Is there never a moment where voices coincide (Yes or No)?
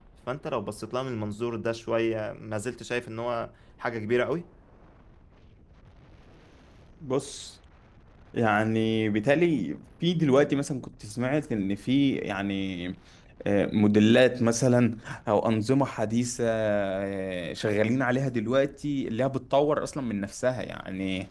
Yes